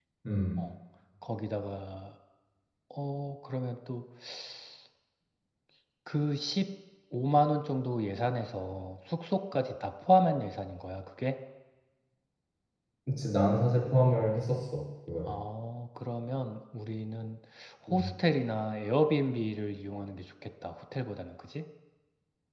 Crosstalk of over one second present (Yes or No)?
No